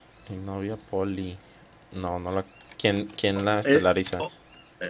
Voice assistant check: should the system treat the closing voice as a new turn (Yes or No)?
Yes